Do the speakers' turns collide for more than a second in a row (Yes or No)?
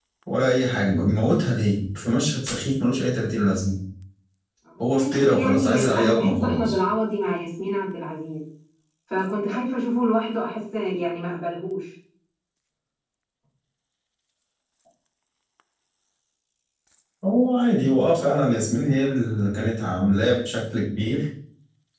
Yes